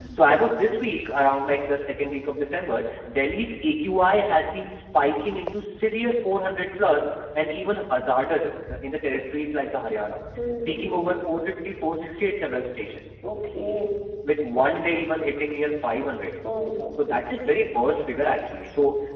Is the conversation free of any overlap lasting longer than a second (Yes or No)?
Yes